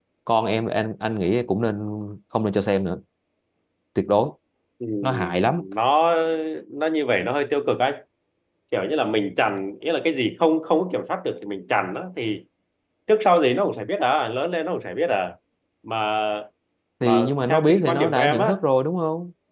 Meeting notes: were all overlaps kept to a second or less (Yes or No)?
No